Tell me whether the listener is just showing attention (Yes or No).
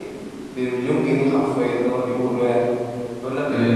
Yes